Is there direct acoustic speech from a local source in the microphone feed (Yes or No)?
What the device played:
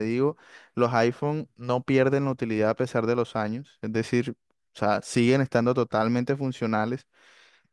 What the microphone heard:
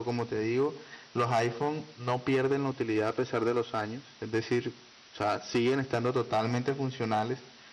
No